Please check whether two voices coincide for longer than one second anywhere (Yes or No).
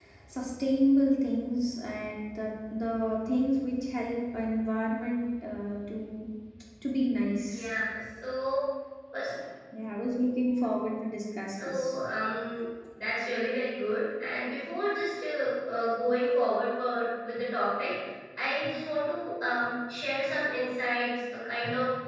No